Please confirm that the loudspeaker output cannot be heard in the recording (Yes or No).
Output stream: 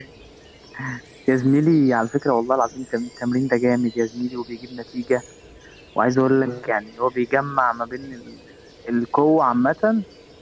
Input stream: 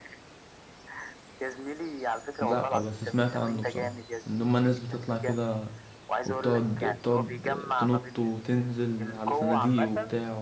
No